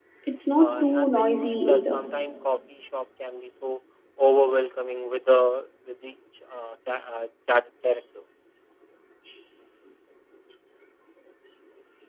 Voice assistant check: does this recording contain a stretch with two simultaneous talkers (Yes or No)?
Yes